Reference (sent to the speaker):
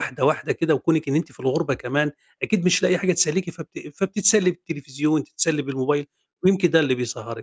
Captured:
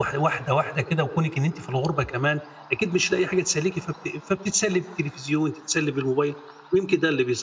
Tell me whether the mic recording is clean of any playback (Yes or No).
No